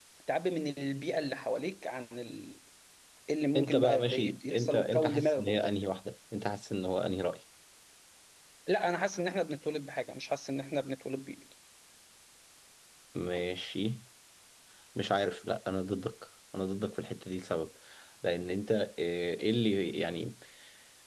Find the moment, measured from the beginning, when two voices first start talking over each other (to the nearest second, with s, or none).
4 s